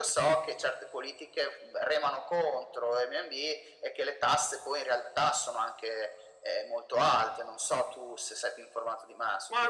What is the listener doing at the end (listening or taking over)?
taking over